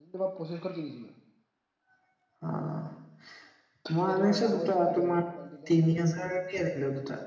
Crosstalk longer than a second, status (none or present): present